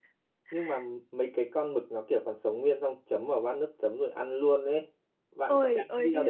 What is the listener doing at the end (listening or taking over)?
taking over